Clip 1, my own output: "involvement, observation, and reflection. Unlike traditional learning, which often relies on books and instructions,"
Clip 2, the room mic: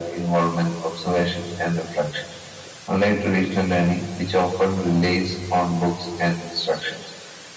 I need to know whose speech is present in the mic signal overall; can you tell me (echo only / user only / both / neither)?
echo only